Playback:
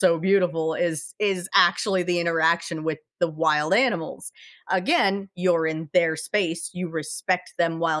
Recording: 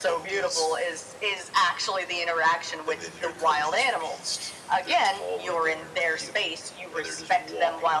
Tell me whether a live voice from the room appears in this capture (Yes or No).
Yes